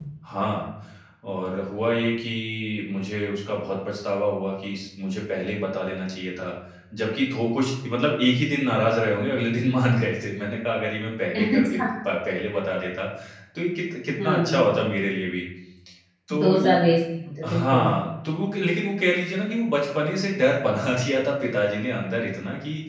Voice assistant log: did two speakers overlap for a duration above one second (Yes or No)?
No